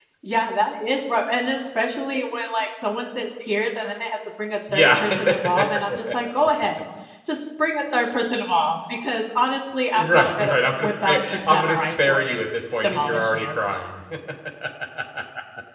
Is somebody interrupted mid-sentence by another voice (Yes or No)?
Yes